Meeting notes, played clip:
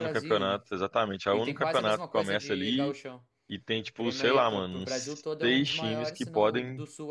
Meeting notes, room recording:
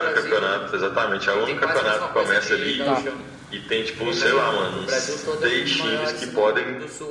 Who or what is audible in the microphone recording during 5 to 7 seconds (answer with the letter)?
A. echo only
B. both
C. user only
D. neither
A